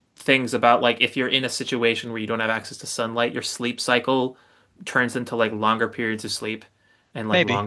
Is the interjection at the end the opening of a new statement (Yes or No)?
No